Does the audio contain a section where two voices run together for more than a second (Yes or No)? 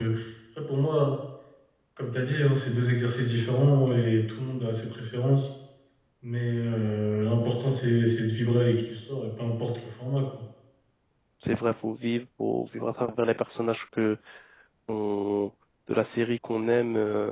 No